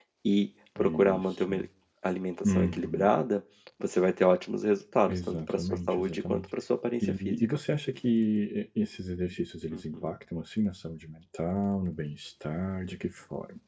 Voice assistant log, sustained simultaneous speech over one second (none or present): present